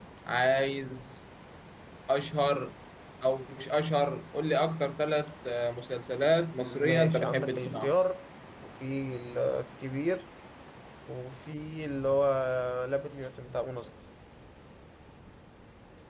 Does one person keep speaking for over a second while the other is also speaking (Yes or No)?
Yes